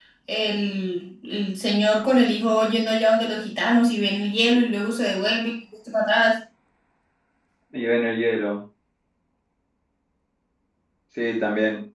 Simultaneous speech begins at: none

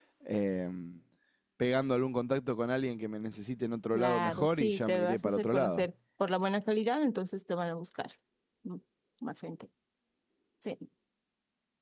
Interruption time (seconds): 4 s

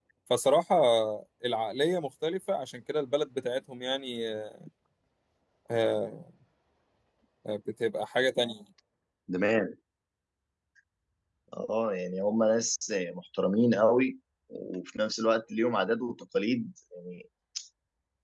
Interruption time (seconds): none

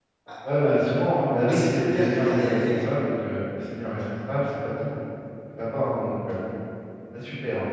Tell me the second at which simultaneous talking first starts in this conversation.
1 s

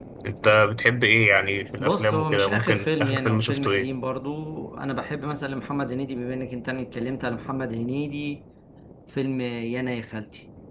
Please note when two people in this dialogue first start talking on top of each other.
2 s

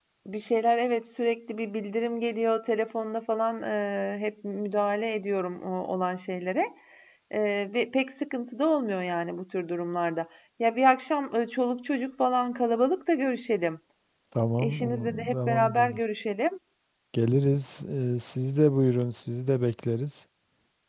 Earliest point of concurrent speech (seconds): 15 s

